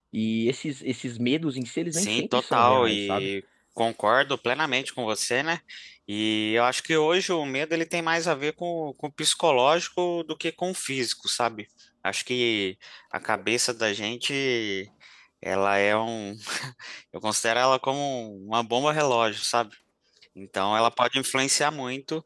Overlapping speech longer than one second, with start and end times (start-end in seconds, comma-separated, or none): 1.9-3.3